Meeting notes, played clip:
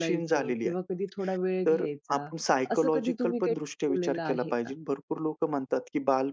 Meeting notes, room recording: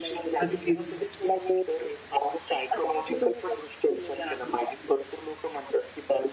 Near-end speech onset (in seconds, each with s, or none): 0.4 s